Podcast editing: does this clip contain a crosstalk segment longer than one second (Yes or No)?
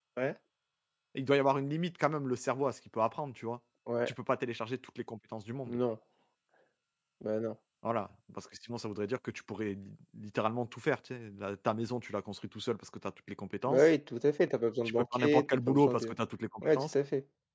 Yes